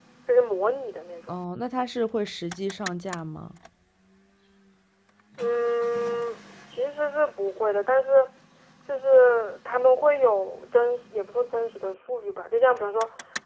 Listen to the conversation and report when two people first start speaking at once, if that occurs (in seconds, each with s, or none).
none